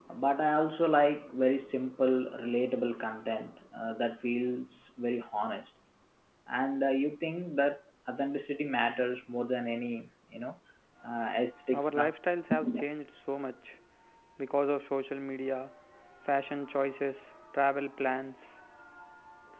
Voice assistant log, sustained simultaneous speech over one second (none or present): none